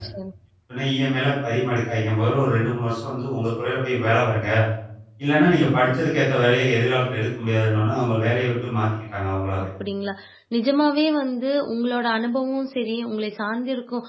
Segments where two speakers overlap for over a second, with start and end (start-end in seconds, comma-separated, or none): none